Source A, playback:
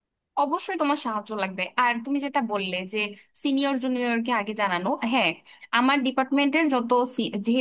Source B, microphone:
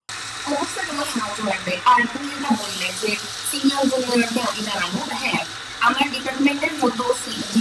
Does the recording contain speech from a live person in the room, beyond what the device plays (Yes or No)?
No